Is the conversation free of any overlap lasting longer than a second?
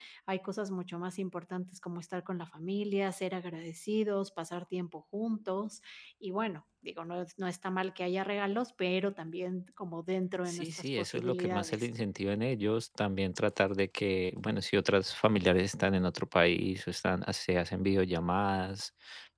No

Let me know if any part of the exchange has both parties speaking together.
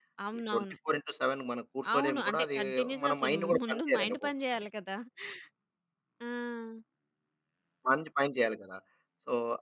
Yes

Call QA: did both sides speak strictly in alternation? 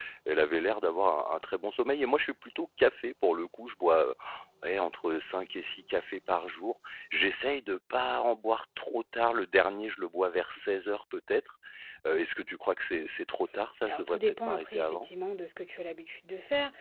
No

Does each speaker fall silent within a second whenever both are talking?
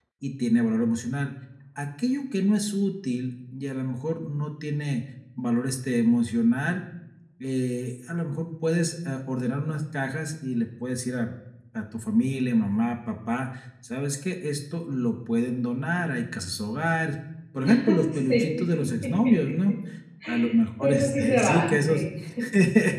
No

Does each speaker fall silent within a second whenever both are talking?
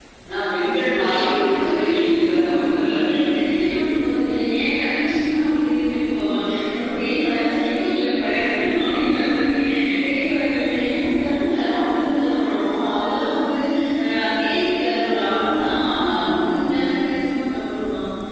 No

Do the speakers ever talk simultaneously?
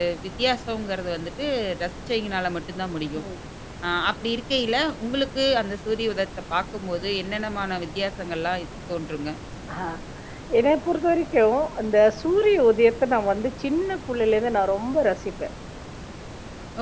No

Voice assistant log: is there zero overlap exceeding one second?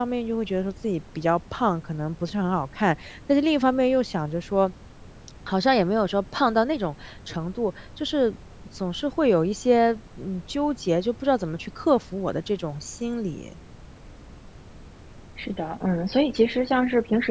Yes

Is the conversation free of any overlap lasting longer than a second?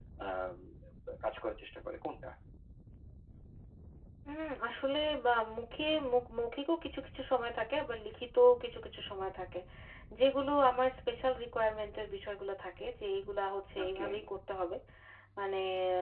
Yes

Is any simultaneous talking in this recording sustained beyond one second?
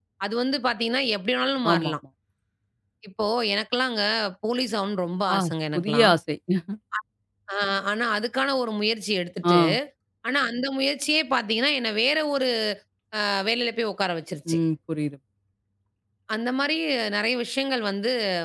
No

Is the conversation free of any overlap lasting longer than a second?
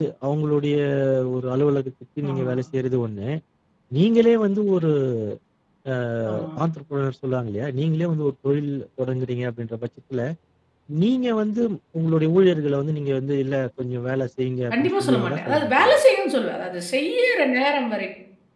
No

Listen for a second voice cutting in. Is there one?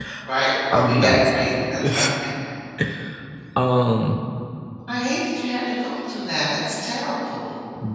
Yes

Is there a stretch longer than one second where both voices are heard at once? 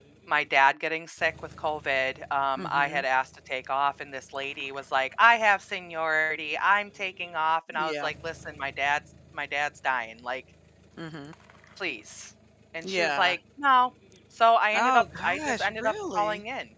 Yes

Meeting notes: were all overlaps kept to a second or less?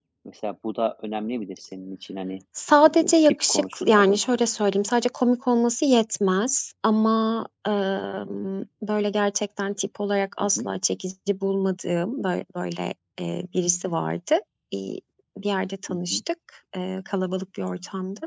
No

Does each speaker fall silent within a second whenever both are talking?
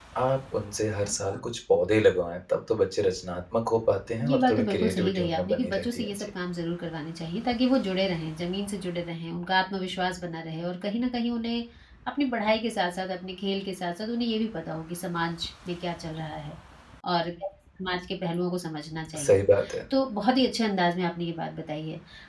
No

